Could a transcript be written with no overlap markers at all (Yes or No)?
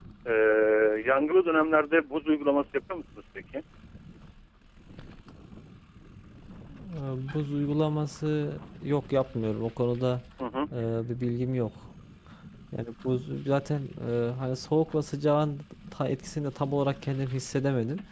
Yes